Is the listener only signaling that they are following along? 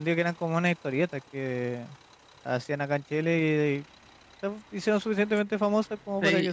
No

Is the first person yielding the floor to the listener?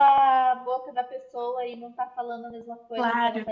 Yes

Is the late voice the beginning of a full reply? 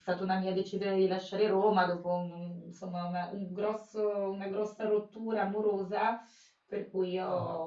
No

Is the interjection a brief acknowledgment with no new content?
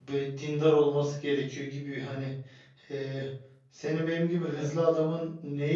Yes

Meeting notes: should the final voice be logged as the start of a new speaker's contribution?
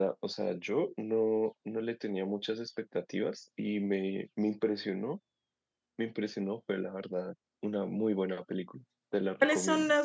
Yes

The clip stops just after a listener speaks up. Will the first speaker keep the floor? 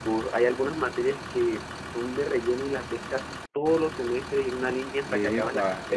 No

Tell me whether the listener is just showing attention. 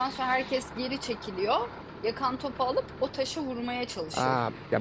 No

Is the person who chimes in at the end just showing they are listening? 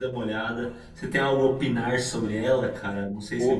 No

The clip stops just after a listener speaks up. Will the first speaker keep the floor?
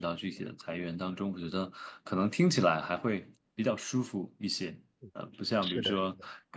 Yes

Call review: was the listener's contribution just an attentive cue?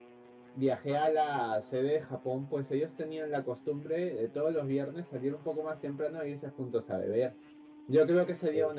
Yes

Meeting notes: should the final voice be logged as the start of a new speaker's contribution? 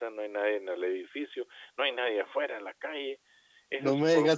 Yes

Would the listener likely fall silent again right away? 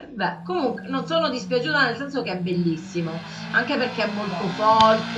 Yes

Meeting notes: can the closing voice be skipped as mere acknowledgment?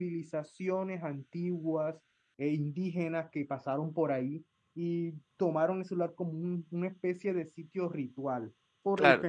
Yes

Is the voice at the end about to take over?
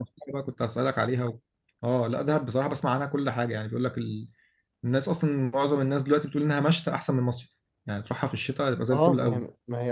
Yes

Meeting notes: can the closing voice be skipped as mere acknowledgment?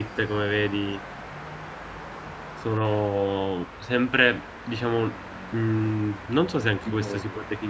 Yes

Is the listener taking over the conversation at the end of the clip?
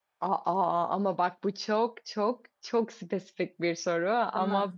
No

